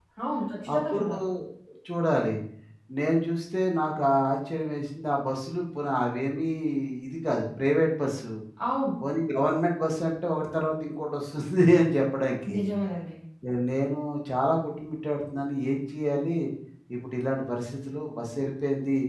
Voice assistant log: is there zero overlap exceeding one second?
Yes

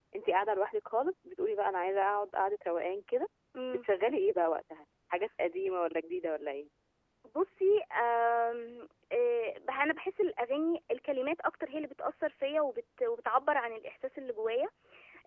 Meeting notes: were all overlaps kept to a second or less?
Yes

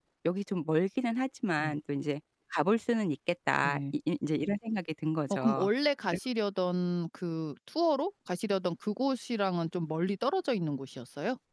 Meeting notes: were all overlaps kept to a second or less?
Yes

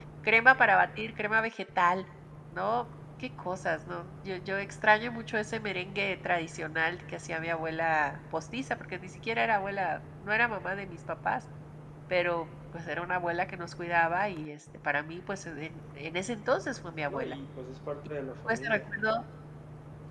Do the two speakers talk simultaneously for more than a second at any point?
No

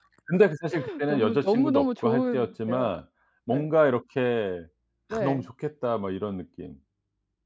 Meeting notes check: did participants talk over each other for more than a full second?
Yes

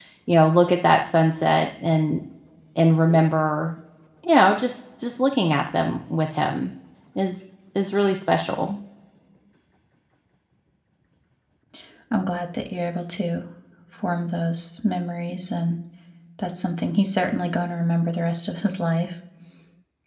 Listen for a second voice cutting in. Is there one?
No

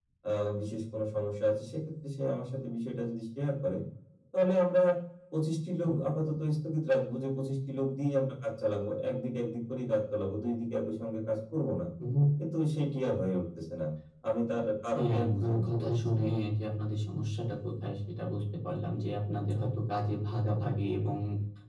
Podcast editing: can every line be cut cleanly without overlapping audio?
No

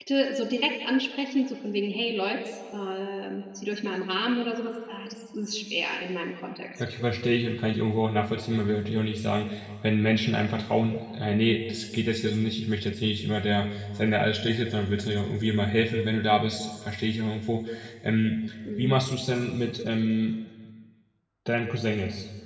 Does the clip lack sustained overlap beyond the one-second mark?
Yes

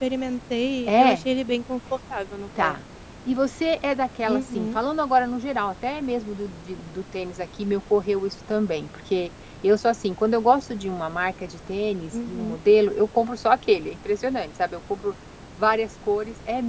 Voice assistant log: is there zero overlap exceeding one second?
Yes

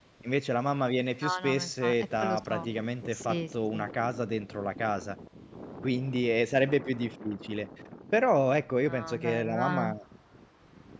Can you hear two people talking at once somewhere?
Yes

